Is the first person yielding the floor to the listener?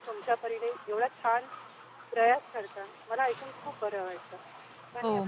Yes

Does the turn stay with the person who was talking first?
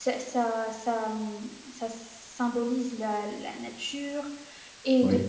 Yes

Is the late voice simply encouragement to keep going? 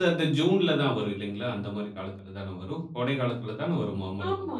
No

